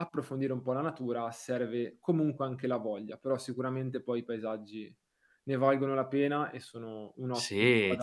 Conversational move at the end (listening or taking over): taking over